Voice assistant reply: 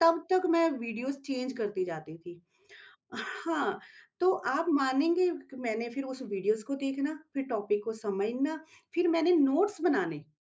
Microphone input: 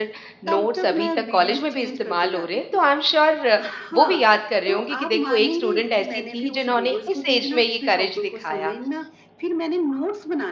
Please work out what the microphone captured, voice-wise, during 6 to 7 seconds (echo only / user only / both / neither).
both